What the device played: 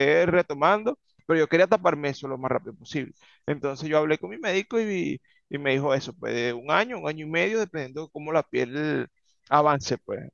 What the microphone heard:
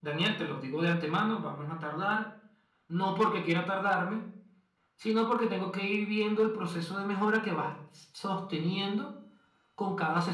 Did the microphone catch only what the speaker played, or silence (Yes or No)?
No